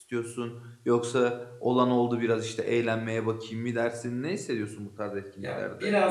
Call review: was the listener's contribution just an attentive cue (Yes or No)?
No